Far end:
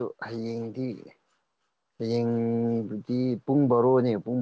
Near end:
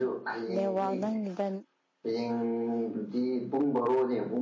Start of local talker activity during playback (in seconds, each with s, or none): 0.5 s